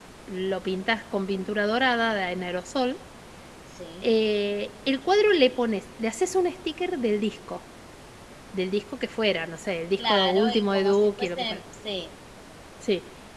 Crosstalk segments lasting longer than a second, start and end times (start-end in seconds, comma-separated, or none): 10.0-11.6